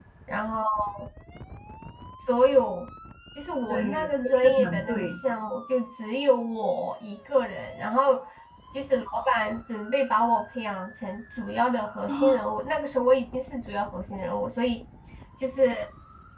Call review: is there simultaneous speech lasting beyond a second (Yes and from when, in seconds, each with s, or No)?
Yes, from 3.7 s